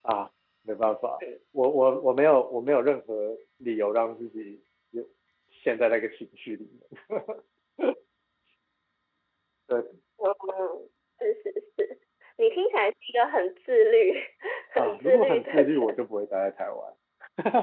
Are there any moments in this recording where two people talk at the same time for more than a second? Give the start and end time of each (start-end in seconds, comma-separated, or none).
14.8-16.0